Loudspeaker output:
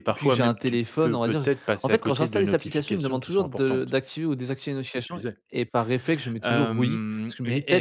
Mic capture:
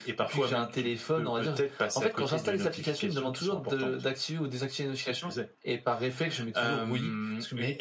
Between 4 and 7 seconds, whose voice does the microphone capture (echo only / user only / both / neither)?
echo only